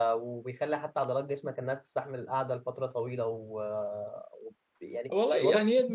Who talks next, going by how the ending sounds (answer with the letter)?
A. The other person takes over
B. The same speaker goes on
A